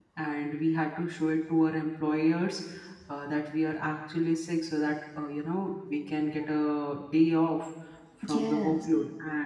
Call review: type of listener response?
listening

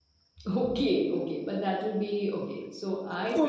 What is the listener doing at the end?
taking over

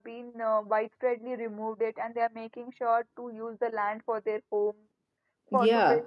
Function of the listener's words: taking over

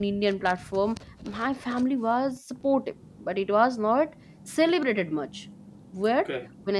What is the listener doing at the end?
listening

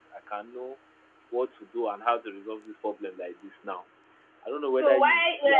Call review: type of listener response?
taking over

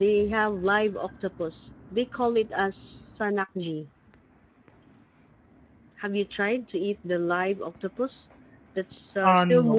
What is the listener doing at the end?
listening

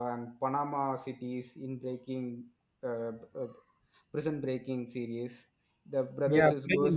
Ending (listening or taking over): taking over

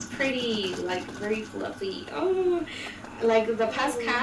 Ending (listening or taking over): listening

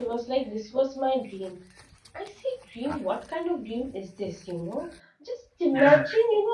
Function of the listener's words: listening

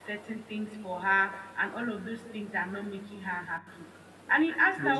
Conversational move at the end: listening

